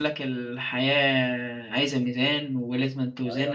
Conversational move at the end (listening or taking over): taking over